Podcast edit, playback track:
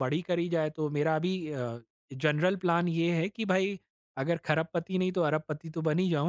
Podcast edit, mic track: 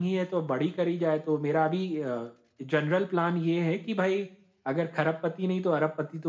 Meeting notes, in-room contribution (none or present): none